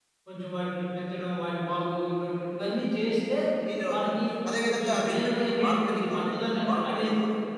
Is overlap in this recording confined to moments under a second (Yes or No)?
No